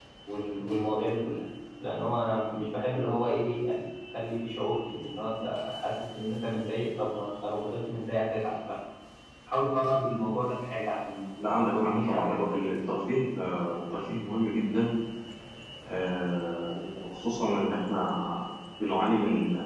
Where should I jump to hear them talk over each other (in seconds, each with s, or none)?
11.4 s